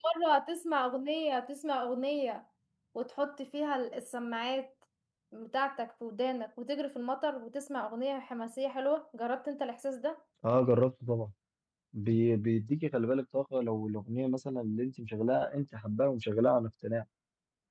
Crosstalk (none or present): none